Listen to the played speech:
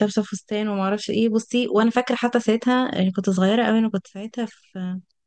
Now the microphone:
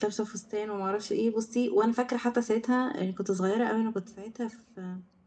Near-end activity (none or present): none